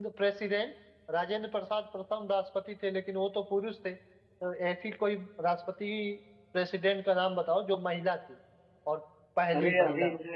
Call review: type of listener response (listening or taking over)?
taking over